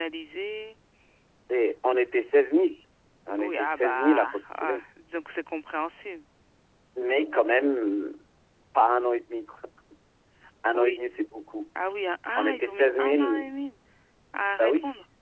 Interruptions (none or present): present